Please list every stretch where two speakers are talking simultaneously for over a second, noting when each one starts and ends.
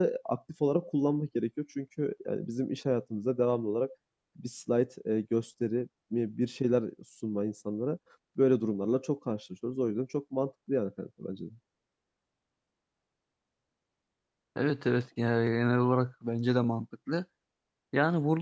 none

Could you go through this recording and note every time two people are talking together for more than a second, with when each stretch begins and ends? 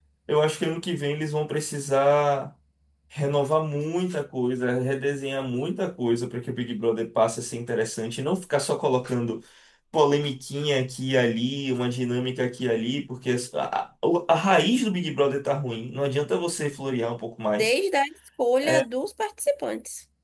none

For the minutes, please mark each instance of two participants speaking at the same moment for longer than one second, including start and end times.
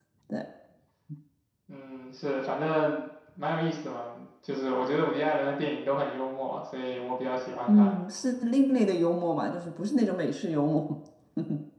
none

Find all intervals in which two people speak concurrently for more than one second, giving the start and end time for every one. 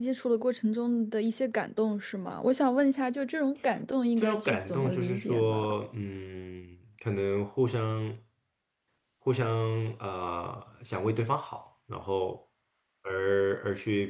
4.2-5.7

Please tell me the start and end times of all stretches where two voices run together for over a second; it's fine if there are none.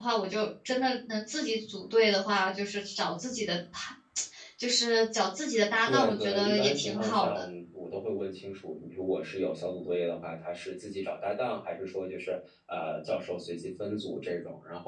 5.8-7.4

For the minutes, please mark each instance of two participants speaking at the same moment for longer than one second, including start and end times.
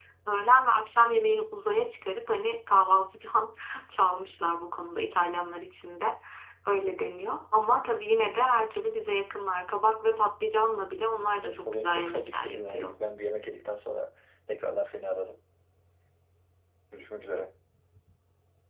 11.4-12.9

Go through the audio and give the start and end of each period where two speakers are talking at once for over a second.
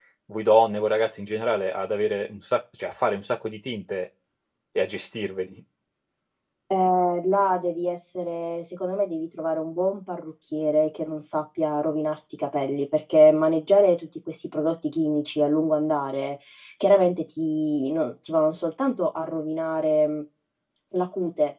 none

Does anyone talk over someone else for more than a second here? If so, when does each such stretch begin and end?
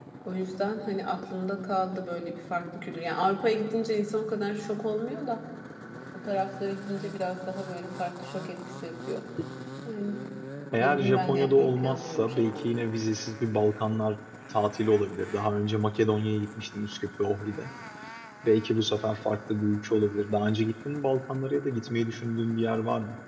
10.8-12.8

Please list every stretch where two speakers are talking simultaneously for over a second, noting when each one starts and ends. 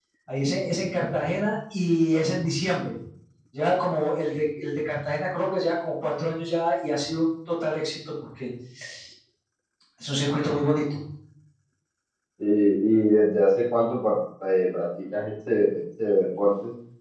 none

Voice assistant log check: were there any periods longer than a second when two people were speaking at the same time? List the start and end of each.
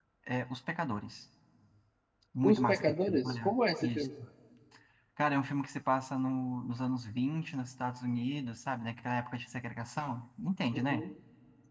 2.4-4.1

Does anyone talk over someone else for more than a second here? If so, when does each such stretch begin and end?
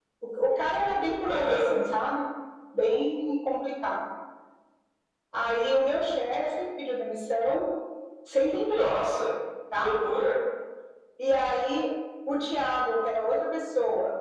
none

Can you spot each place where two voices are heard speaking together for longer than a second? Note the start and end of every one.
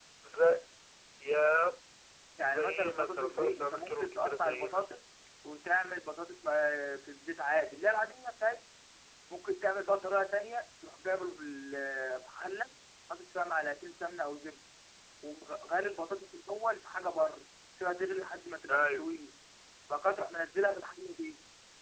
2.5-4.9

